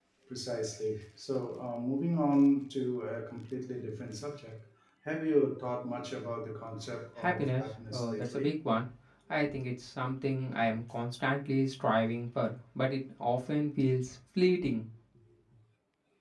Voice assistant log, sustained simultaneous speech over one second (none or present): present